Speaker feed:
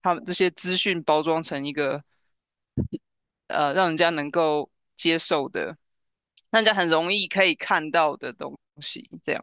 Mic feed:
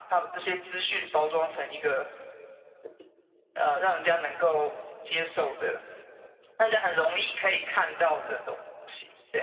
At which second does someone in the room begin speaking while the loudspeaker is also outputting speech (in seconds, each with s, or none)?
none